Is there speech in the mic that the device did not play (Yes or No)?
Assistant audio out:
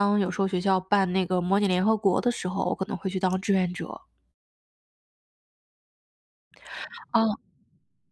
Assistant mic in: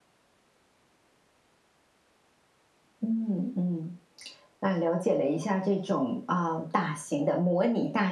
Yes